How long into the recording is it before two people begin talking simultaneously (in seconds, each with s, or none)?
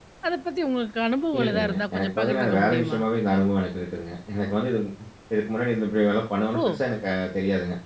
1.3 s